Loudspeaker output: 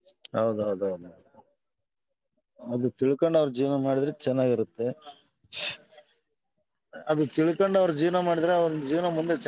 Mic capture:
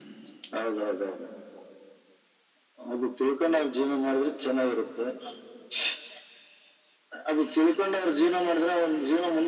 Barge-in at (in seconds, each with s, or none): none